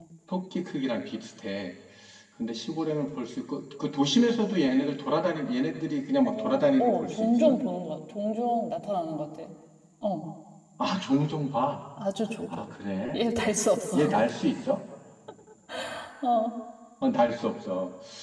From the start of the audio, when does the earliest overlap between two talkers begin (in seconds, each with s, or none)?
6.2 s